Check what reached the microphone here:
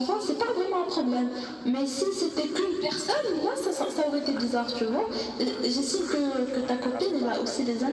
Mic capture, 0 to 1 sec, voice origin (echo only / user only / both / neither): echo only